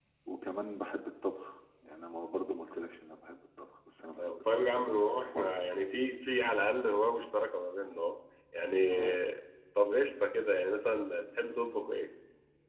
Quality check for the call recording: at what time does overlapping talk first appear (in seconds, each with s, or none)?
4.2 s